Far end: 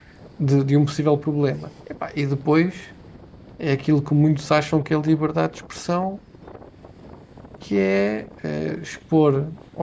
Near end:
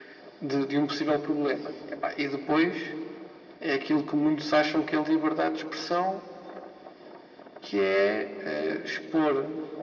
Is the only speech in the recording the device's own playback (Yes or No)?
Yes